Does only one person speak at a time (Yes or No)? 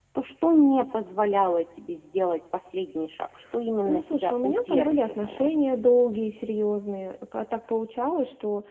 No